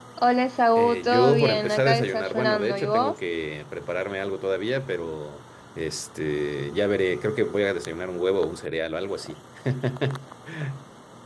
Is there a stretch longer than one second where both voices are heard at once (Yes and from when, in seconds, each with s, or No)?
Yes, from 0.8 s